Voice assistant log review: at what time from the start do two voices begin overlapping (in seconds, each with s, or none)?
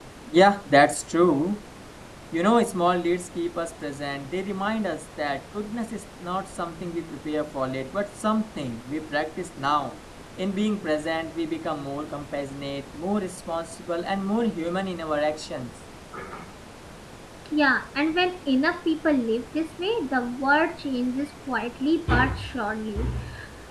none